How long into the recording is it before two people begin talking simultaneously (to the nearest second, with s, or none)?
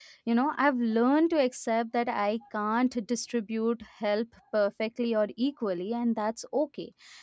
none